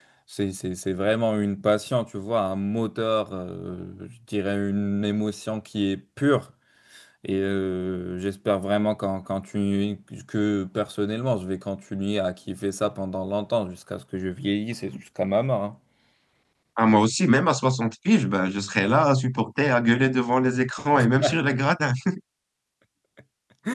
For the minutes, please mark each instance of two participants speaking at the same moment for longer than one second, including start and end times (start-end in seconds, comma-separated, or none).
none